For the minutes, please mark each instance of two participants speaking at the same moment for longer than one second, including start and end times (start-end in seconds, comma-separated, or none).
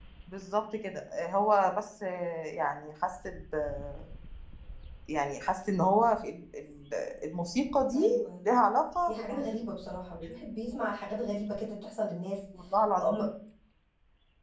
none